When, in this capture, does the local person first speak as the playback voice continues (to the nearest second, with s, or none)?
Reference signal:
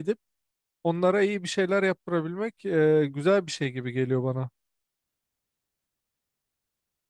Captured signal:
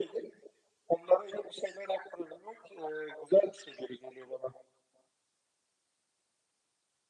none